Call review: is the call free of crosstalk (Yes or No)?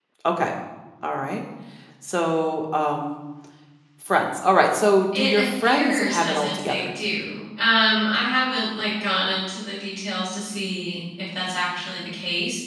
No